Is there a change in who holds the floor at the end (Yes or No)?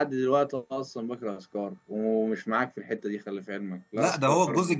Yes